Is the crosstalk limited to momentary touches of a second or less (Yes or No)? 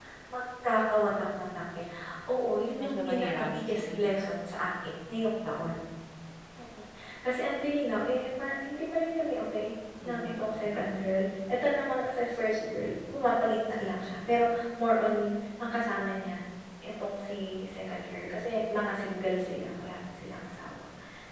No